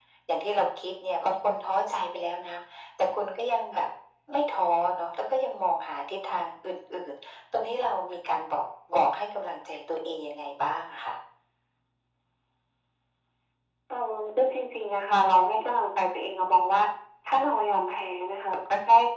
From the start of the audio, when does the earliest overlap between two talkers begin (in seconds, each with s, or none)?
none